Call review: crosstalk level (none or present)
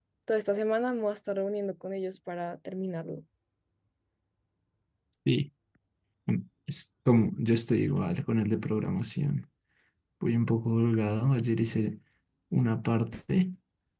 none